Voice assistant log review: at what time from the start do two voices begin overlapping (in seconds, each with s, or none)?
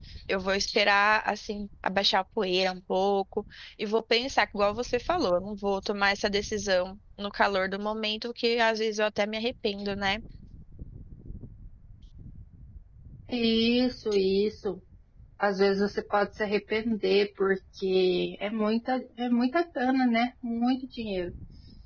none